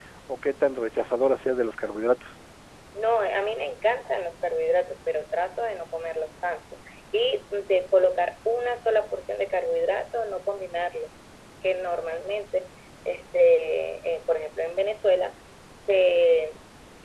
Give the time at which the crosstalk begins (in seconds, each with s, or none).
none